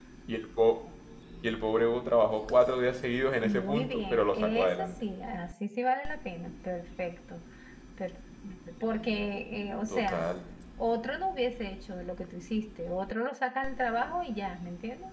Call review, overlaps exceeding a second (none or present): present